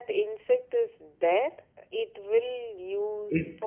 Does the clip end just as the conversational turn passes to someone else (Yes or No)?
Yes